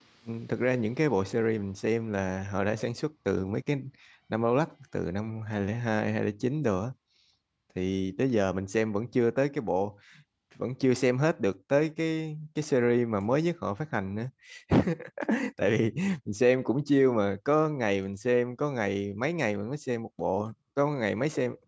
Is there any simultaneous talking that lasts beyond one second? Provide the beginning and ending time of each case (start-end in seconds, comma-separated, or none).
none